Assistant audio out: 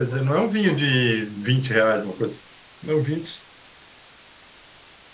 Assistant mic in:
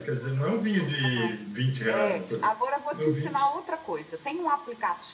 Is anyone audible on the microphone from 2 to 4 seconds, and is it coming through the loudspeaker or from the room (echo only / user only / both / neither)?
both